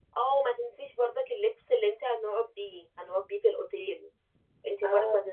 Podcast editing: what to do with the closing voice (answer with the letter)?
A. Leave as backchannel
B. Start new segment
A